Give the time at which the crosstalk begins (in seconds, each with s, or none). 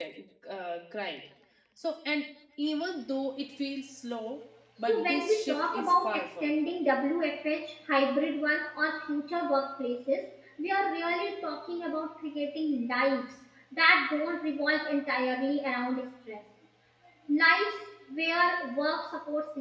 4.9 s